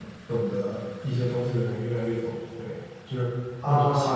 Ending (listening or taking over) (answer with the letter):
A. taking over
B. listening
B